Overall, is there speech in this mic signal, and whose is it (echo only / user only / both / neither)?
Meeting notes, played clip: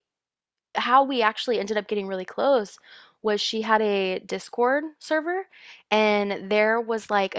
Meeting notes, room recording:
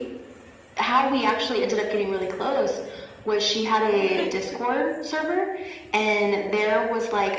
both